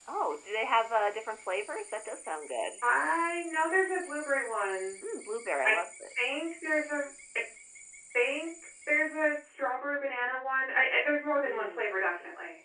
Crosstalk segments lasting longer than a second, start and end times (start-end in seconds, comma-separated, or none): none